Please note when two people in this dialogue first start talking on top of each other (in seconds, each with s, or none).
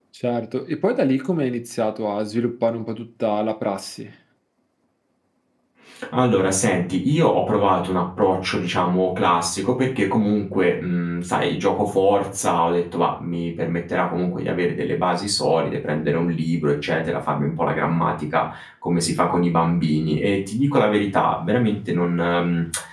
none